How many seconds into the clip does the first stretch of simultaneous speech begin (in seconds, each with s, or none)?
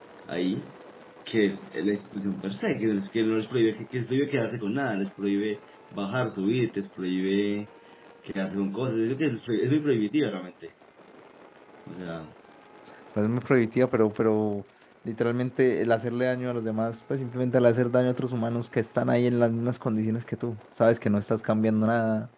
none